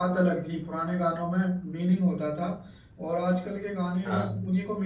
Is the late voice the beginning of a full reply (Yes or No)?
No